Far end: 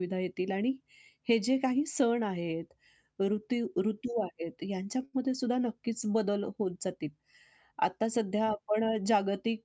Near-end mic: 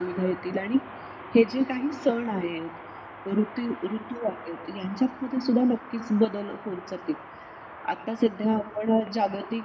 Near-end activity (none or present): none